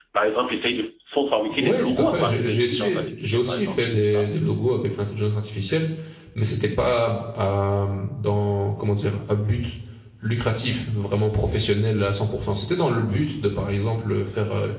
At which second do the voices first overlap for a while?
2 s

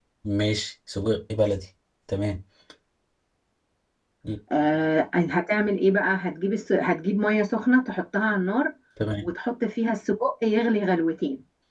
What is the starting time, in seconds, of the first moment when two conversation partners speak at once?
none

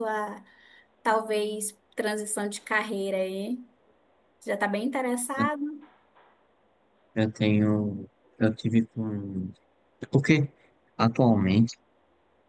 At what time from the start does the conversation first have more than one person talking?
none

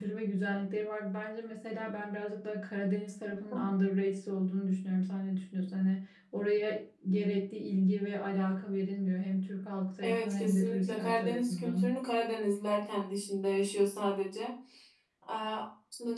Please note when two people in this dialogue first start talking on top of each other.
10 s

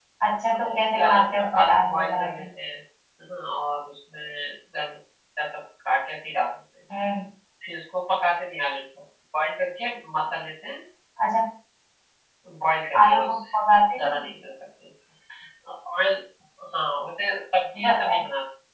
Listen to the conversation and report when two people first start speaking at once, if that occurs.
1 s

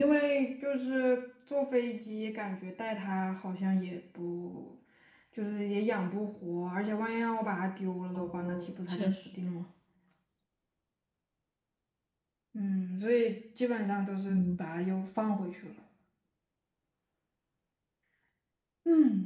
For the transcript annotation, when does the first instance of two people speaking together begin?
8 s

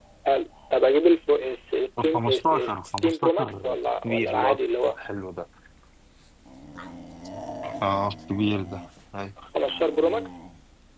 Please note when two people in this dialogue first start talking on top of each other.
2 s

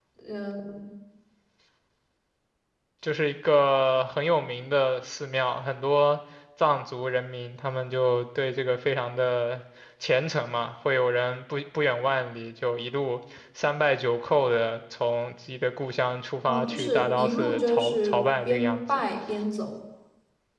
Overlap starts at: 16 s

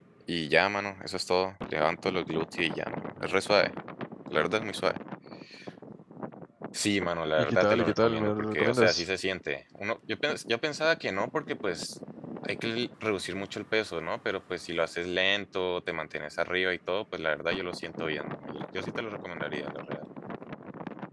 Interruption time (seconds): 7 s

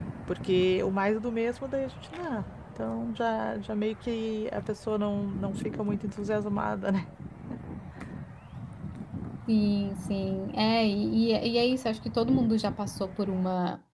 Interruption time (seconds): none

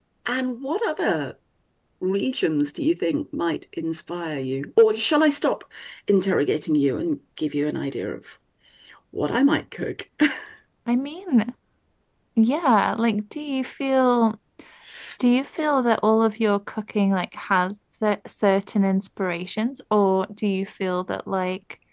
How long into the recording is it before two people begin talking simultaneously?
none

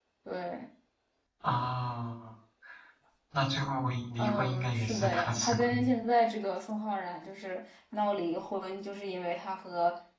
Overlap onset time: 4 s

